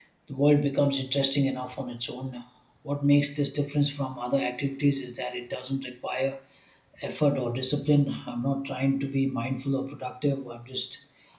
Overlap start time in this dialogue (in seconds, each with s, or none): none